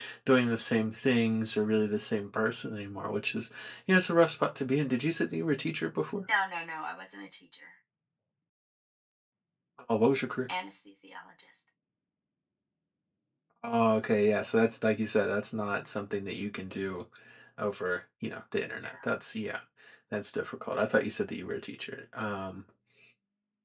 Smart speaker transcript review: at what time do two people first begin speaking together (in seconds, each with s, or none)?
none